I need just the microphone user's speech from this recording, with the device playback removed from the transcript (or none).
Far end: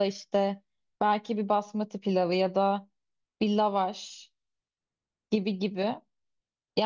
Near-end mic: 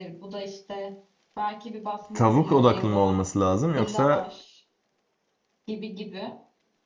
Tavuk odaklı mı olması lazım yoksa